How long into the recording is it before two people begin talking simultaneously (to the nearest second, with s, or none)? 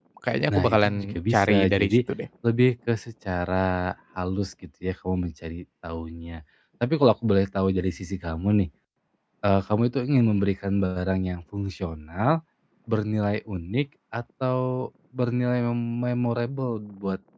1 s